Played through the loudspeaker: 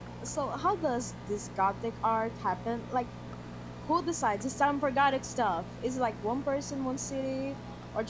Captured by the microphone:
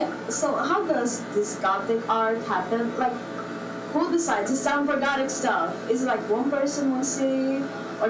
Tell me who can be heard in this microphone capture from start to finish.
echo only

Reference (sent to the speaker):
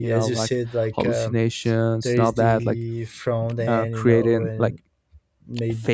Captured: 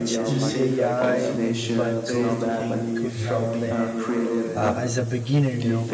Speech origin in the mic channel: both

